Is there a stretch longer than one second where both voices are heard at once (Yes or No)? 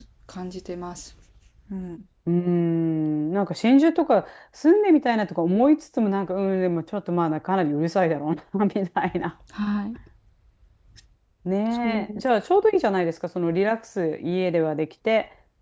No